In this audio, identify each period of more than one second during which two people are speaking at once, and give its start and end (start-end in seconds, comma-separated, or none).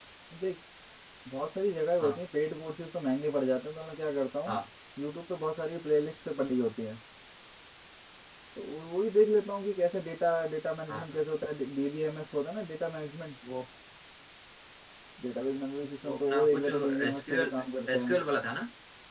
16.0-17.5